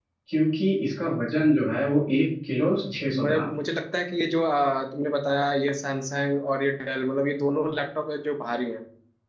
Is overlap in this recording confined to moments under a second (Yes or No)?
Yes